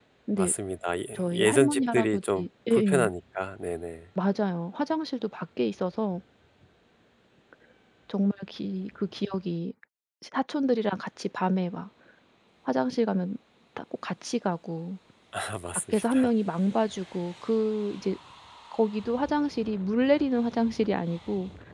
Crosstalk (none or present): present